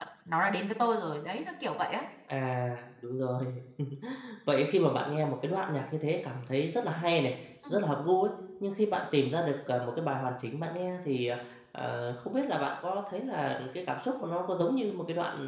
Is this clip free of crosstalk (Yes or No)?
Yes